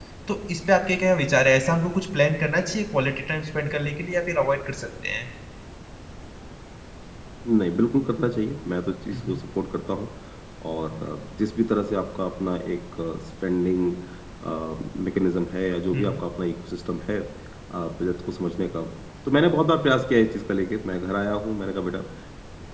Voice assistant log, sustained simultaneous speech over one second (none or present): none